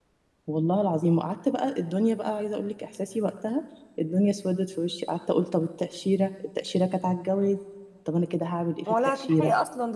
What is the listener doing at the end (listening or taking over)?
taking over